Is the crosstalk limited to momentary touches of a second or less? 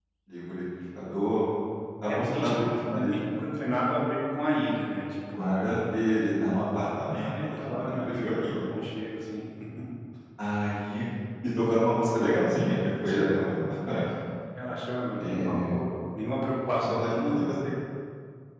No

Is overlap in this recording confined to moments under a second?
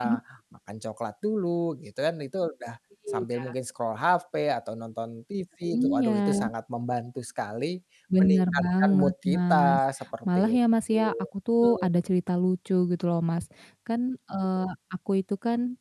No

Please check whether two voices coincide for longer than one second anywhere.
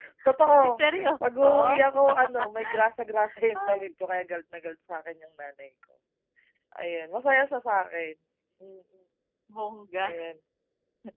Yes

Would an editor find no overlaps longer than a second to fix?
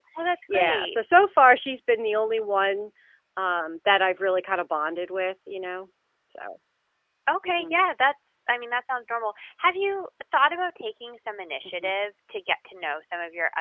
Yes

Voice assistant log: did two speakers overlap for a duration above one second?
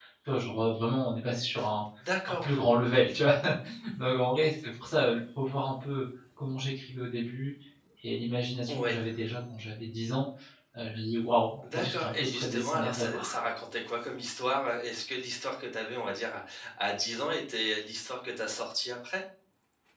Yes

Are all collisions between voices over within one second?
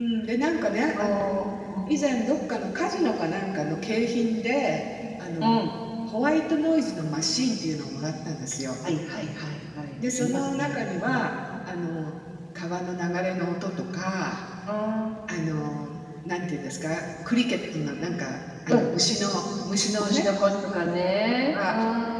No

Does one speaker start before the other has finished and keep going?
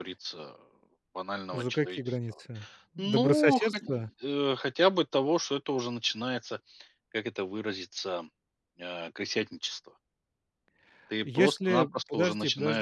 Yes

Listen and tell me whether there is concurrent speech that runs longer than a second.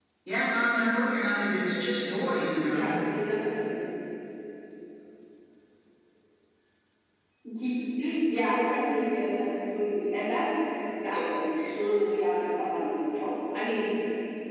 No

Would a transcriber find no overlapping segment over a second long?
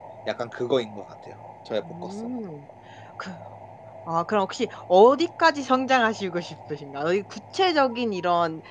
Yes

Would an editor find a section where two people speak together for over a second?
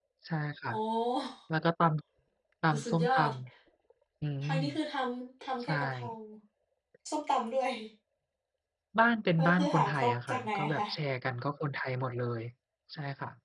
Yes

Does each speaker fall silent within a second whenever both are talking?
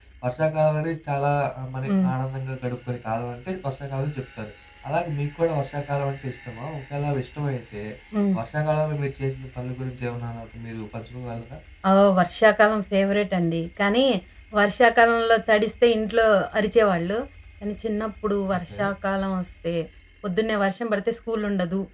Yes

